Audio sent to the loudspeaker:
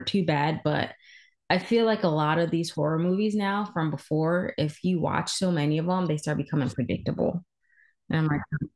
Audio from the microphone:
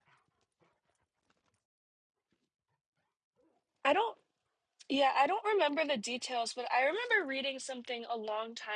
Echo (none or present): none